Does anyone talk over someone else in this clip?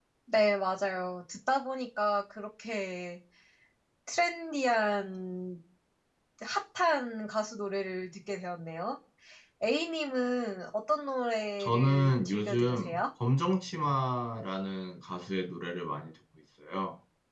Yes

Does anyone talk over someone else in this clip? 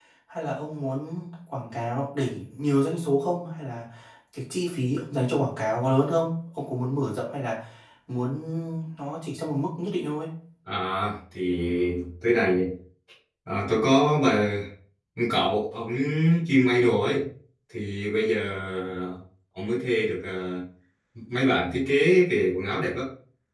No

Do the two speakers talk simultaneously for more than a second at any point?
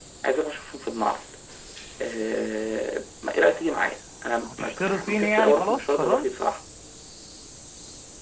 Yes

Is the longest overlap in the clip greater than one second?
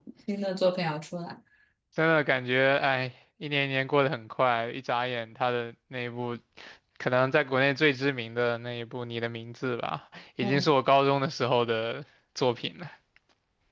No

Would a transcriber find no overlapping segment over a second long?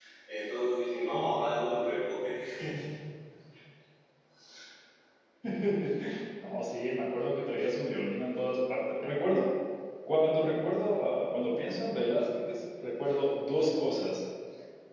Yes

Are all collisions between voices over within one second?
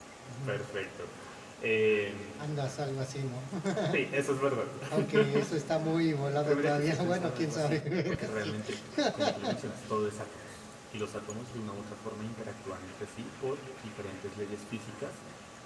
No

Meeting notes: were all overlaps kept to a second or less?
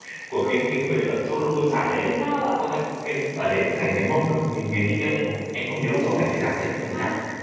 Yes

